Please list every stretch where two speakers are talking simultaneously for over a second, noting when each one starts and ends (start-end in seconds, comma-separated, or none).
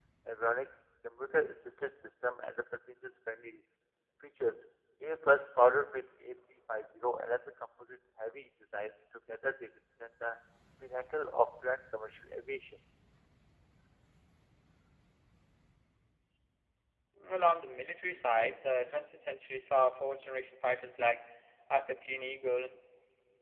none